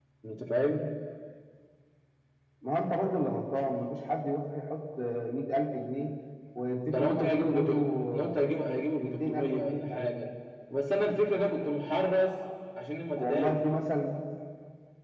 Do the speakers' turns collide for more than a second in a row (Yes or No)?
Yes